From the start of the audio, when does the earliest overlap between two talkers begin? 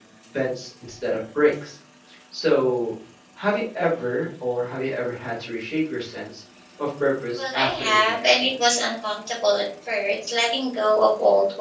7.4 s

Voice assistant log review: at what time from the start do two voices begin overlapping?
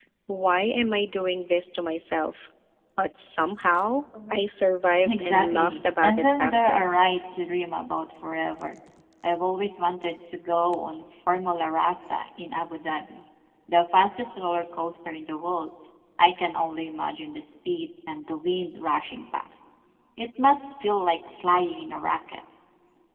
5.0 s

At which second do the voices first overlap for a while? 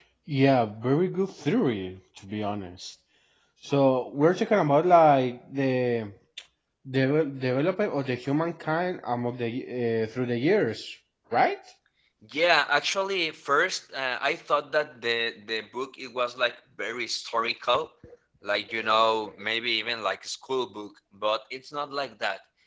none

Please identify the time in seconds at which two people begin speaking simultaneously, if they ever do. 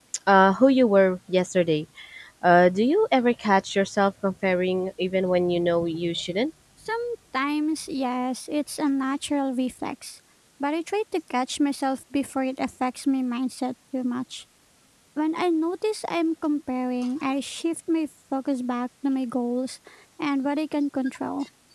none

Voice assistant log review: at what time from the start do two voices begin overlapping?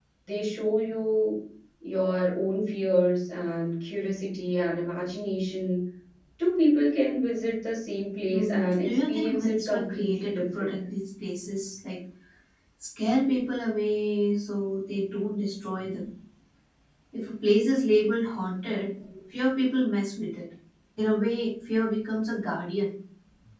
8.3 s

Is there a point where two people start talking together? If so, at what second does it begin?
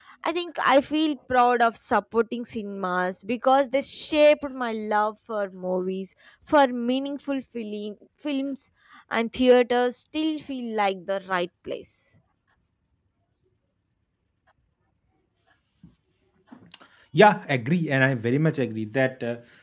none

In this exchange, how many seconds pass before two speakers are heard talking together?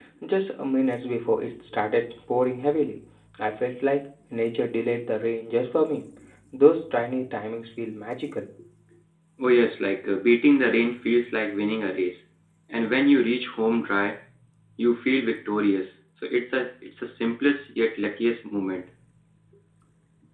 none

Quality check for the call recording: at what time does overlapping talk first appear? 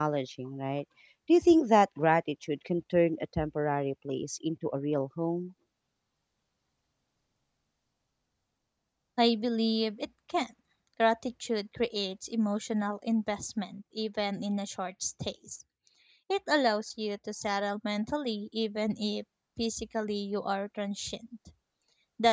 none

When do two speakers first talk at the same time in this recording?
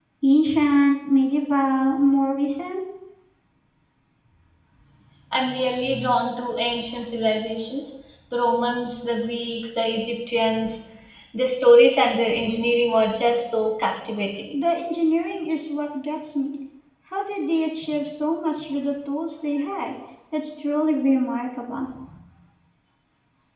none

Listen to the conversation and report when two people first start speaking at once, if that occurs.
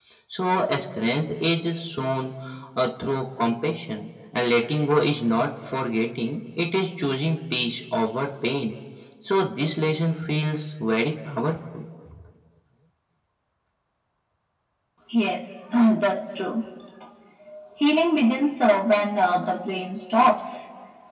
none

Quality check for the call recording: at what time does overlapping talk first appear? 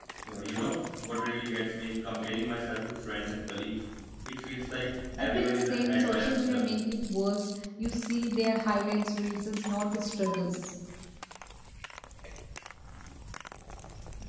5.2 s

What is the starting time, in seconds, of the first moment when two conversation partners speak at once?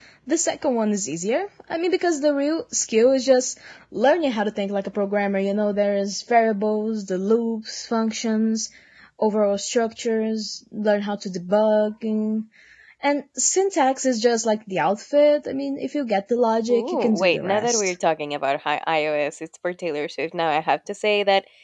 16.7 s

